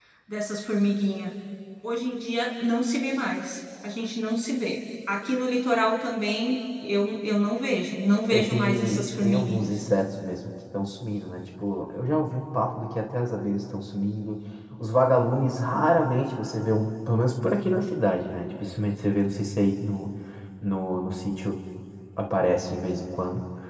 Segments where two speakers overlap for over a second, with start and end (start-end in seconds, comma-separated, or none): 8.3-9.7